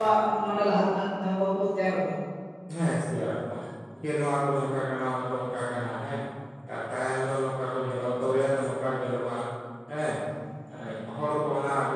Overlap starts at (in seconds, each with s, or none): none